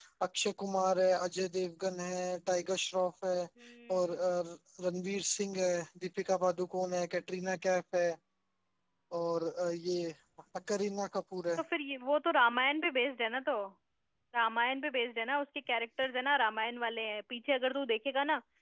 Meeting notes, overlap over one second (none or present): none